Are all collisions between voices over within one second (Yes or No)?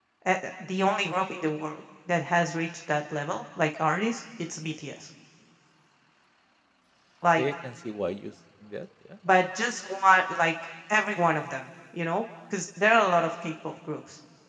Yes